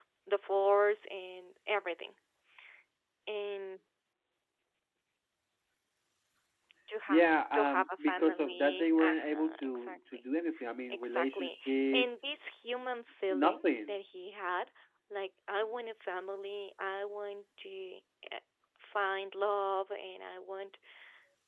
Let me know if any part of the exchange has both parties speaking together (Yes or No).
Yes